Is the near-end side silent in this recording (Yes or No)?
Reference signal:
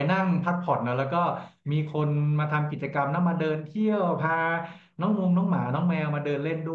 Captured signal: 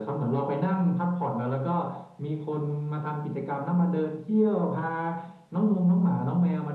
Yes